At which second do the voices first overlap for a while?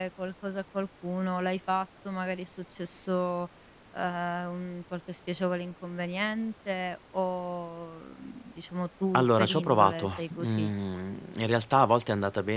9.1 s

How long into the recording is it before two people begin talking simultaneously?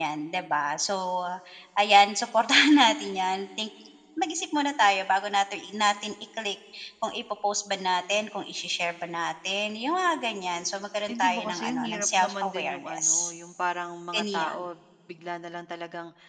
11.1 s

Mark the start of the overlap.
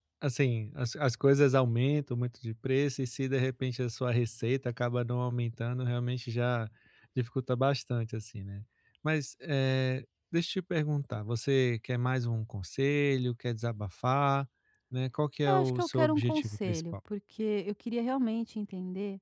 15.5 s

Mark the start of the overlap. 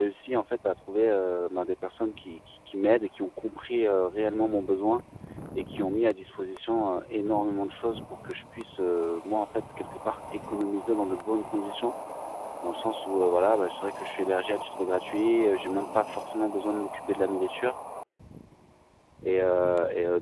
none

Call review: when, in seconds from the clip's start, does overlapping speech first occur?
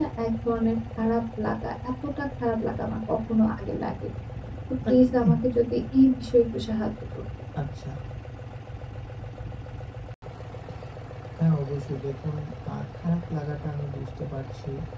none

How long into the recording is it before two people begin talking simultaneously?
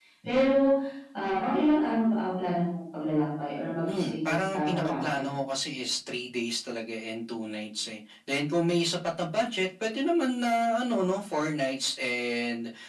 3.9 s

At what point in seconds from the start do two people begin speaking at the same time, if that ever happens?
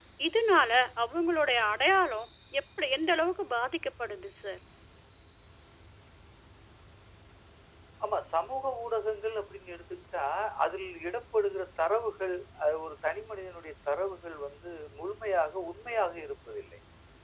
none

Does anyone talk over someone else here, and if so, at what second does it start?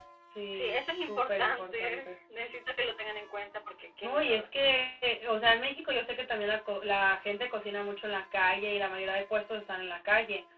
0.5 s

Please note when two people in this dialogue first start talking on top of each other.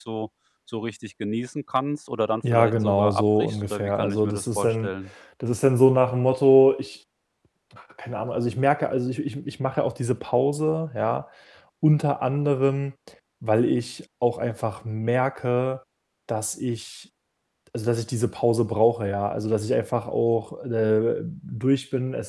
2.4 s

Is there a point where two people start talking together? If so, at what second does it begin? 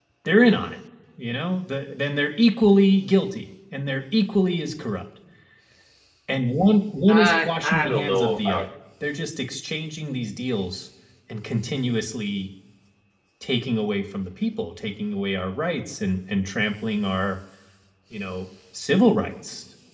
7.1 s

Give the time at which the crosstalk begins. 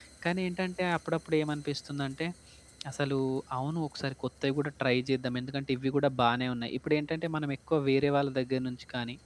none

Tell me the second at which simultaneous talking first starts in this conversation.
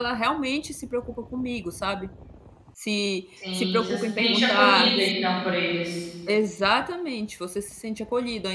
3.5 s

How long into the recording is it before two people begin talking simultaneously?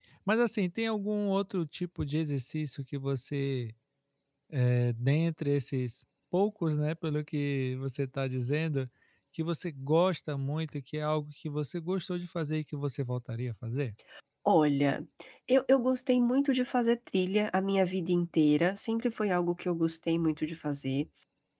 none

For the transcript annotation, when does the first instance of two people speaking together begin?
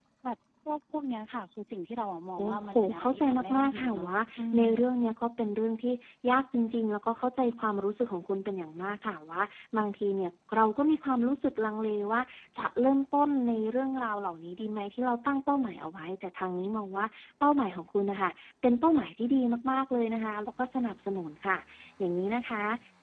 2.4 s

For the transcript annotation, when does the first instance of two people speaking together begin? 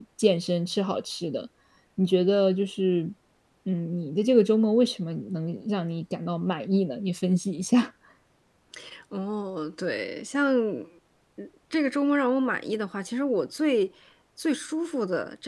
none

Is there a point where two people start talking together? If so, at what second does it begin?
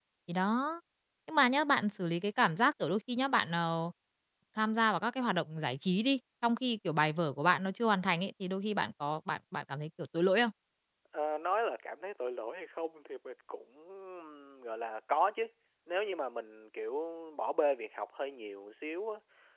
none

